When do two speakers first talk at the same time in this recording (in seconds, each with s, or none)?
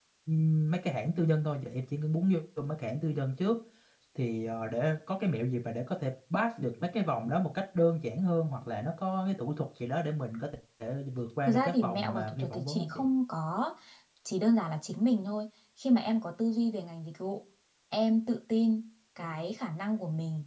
11.4 s